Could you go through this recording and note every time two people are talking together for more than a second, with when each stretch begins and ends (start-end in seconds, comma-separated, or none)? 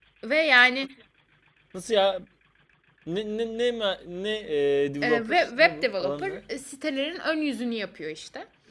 5.0-6.4